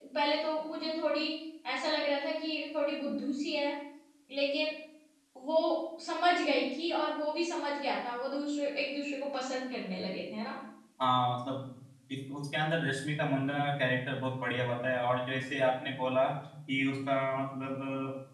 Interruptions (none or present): none